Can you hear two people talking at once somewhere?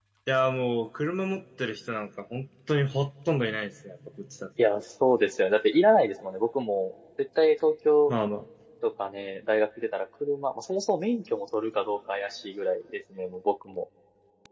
No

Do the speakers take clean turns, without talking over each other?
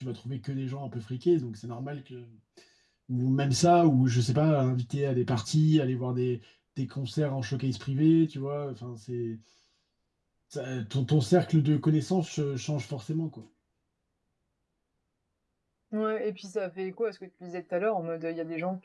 Yes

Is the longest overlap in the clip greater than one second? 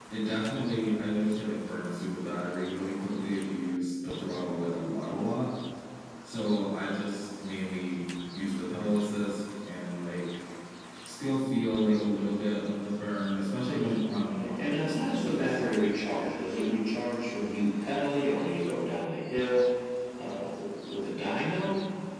Yes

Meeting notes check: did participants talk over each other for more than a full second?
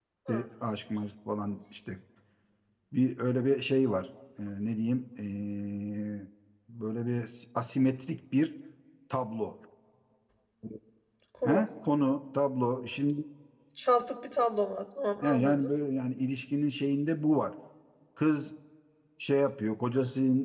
No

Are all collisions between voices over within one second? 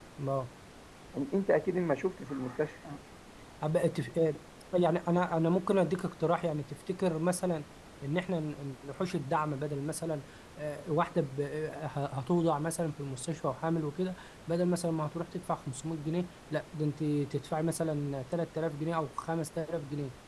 Yes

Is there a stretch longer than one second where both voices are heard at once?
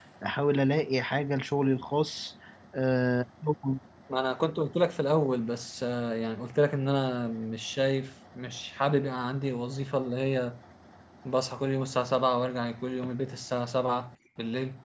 No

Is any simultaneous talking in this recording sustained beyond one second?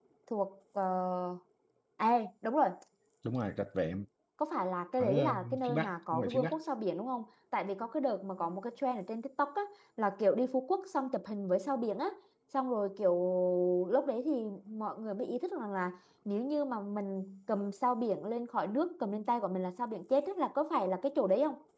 Yes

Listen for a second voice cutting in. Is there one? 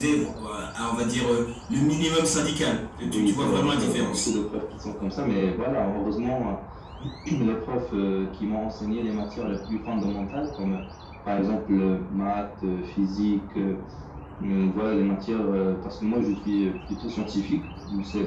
Yes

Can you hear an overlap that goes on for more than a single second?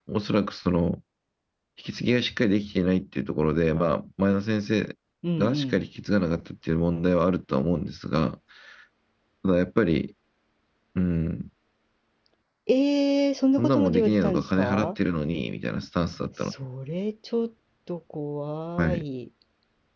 Yes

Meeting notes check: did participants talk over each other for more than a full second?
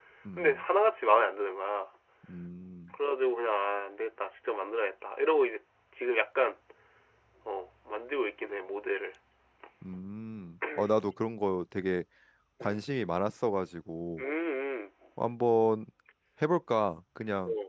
No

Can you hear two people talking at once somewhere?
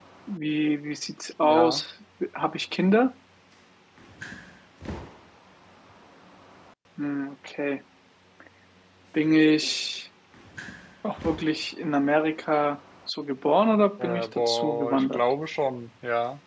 Yes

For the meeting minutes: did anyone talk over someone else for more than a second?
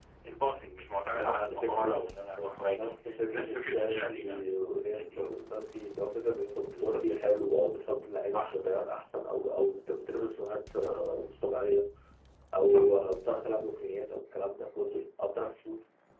Yes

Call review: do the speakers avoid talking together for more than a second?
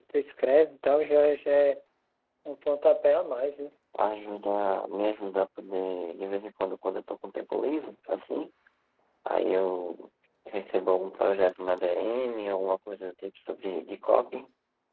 Yes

